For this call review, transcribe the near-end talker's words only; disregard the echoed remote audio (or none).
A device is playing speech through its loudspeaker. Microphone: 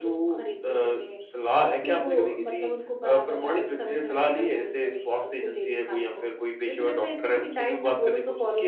none